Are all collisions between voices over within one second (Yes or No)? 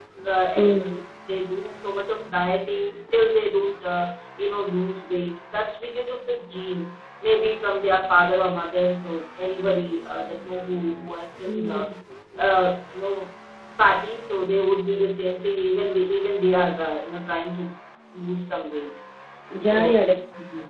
Yes